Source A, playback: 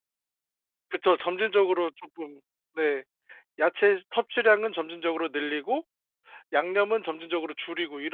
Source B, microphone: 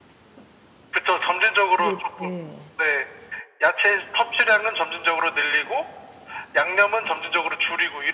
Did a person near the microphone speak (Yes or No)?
Yes